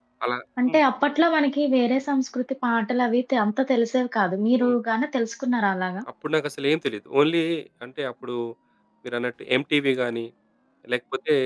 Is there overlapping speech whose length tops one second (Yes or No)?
No